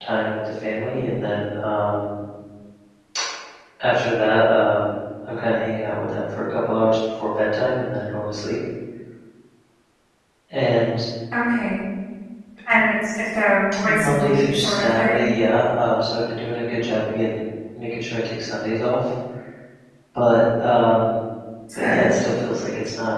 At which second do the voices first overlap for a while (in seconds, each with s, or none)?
13.8 s